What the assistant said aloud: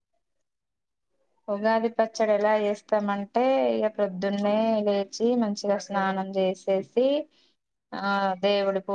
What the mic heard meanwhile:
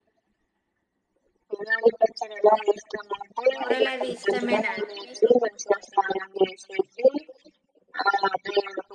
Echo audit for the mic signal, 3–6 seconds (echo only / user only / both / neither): both